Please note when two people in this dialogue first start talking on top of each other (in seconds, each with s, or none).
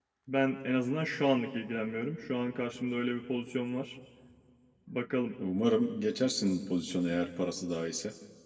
none